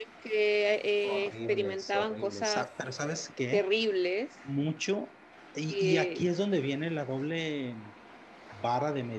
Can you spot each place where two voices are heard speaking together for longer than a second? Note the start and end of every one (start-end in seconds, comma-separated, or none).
1.0-2.7